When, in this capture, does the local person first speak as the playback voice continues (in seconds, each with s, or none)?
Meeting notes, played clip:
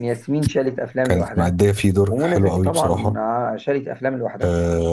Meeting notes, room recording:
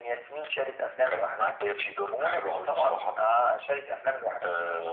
none